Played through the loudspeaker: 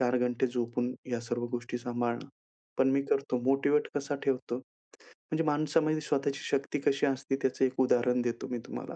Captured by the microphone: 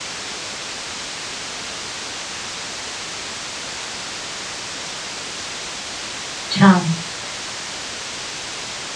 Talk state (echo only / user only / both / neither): user only